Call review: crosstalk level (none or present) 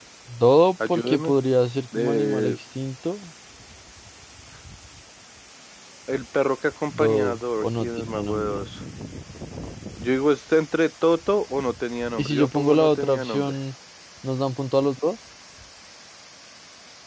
present